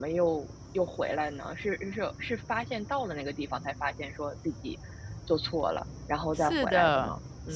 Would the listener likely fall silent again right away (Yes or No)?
No